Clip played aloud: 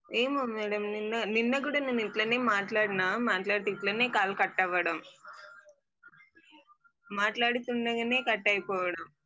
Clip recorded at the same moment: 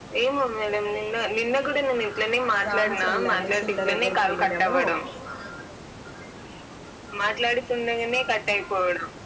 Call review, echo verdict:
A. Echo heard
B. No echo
A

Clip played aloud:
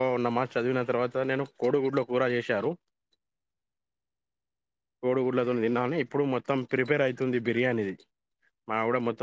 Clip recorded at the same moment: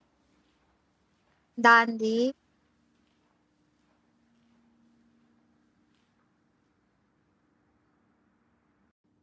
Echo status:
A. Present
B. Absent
B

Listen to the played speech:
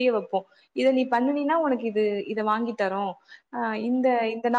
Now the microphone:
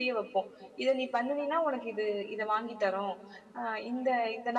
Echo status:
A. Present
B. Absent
A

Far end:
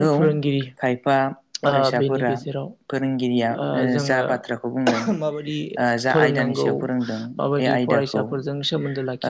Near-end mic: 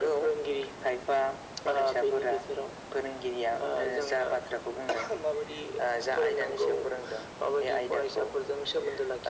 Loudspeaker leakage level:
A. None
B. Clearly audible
B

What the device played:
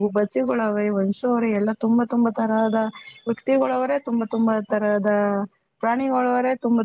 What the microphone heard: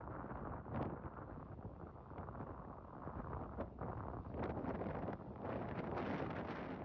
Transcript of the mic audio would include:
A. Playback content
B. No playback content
B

